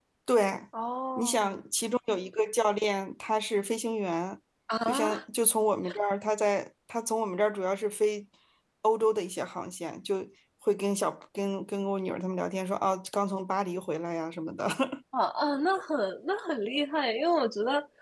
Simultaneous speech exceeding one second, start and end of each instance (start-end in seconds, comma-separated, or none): none